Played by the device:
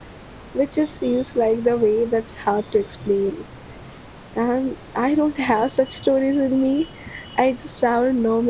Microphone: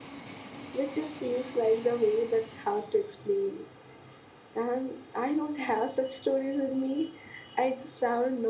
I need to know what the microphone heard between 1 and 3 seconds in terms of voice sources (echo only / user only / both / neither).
echo only